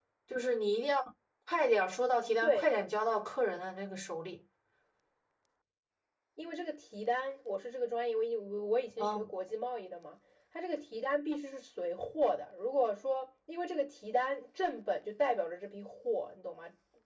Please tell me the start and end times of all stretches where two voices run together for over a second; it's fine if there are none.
none

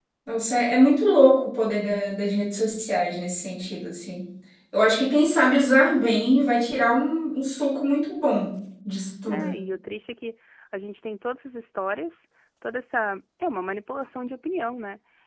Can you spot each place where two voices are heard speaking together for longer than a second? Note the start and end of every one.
none

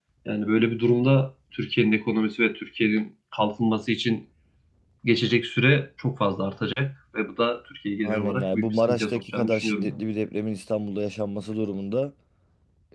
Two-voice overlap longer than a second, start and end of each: 8.0-10.0

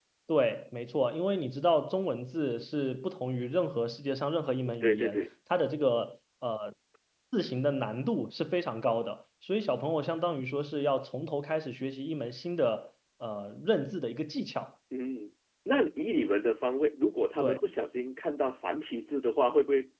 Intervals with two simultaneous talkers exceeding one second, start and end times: none

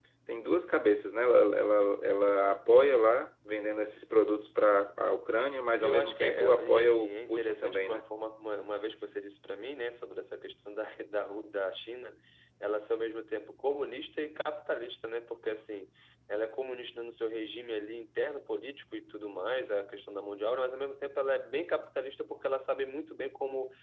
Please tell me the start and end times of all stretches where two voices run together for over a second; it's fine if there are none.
5.8-8.0

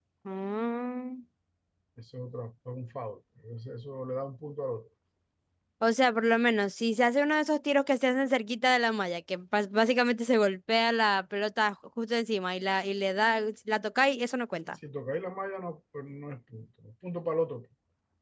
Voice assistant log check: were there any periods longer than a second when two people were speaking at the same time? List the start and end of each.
none

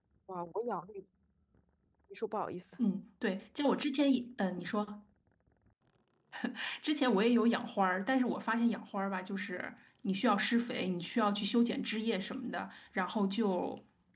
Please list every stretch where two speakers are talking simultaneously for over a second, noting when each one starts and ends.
none

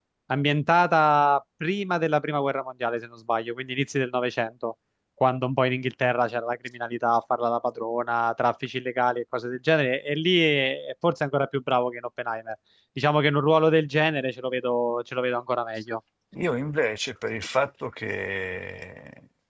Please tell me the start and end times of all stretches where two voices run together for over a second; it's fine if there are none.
none

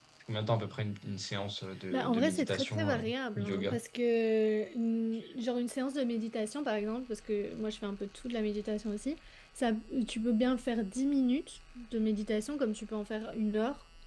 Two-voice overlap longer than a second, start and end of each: 1.9-3.8

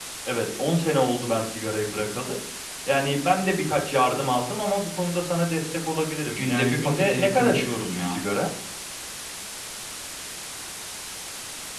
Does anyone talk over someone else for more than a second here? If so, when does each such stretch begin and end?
6.4-8.2

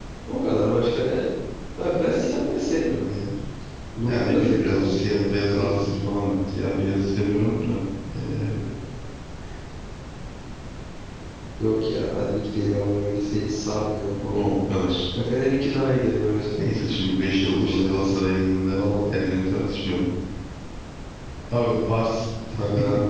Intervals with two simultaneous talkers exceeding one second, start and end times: 4.1-5.9

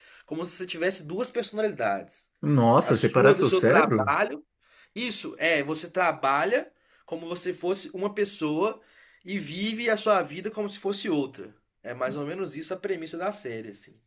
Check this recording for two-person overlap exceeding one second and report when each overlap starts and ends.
2.8-4.1

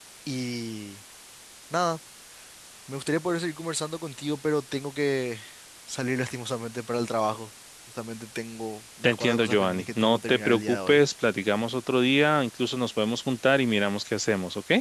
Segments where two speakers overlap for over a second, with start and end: 9.0-11.0

